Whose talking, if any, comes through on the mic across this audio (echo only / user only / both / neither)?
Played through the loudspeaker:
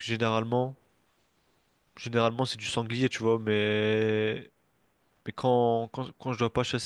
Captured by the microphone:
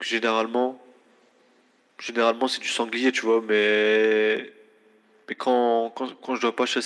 echo only